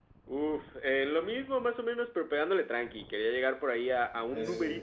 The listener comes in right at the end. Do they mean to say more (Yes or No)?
No